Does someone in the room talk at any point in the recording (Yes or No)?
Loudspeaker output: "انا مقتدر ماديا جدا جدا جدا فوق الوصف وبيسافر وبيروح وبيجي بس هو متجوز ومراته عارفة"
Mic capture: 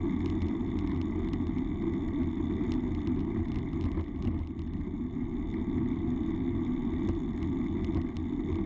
No